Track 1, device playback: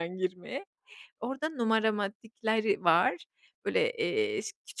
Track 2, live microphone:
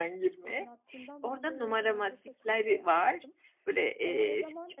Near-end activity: present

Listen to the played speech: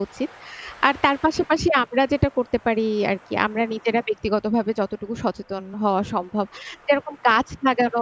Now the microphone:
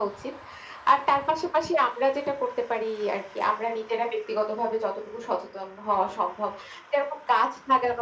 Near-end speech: none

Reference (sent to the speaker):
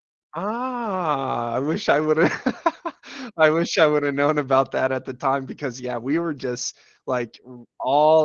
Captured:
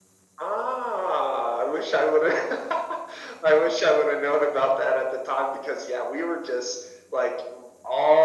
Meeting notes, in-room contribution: none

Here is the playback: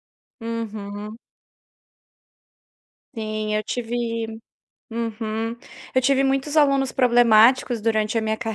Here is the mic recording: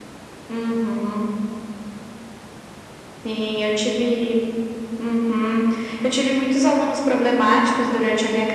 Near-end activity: none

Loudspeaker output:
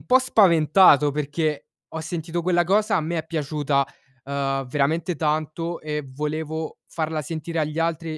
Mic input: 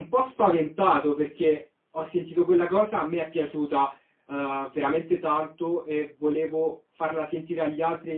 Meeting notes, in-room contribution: none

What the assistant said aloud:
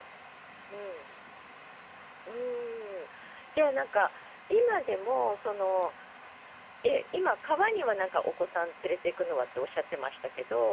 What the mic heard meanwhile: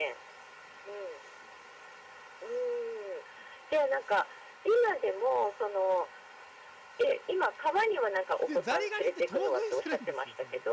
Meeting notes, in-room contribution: present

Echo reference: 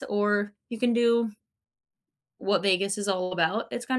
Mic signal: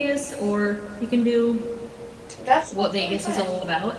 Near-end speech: present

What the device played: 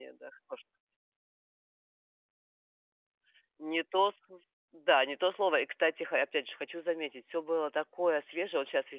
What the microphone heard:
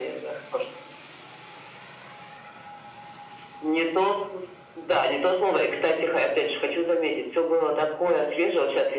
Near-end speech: none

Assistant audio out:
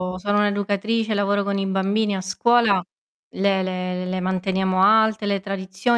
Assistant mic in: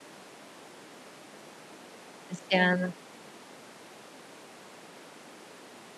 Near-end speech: present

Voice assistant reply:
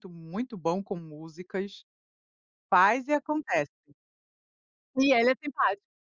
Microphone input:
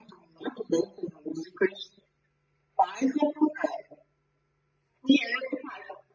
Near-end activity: none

